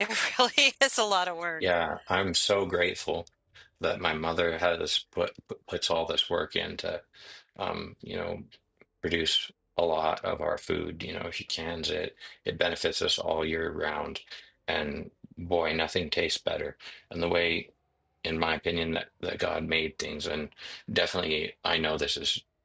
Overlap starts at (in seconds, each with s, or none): none